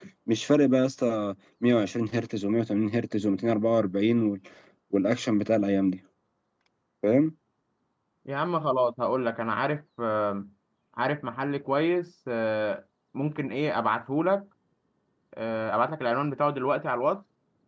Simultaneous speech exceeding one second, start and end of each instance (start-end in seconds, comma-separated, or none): none